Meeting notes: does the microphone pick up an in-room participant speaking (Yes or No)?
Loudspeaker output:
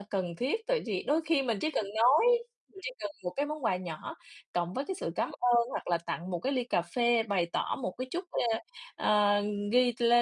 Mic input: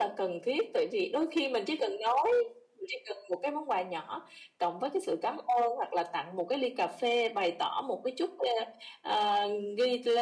No